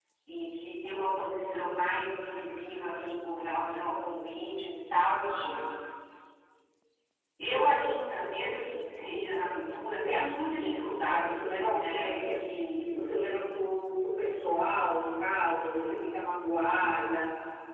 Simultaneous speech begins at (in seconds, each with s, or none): 9.8 s